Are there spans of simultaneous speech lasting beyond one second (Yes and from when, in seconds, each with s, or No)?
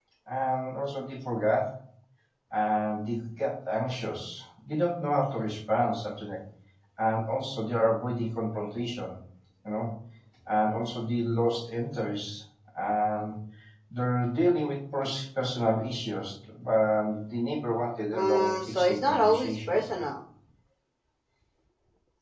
Yes, from 18.1 s